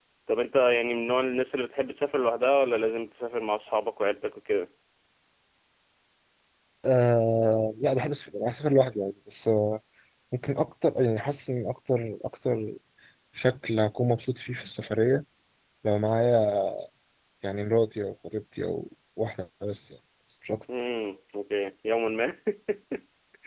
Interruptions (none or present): none